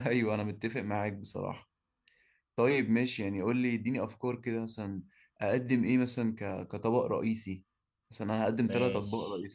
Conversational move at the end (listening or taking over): taking over